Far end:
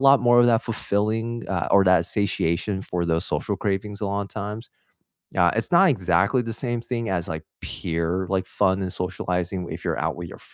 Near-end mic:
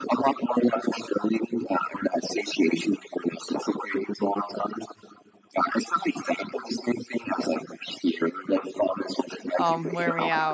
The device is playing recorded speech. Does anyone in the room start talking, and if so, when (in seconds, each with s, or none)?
9.5 s